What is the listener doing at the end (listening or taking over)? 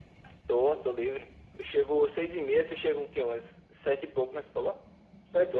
taking over